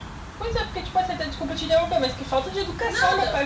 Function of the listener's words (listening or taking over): listening